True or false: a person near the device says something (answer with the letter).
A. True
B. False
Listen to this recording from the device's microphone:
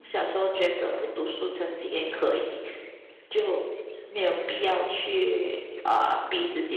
A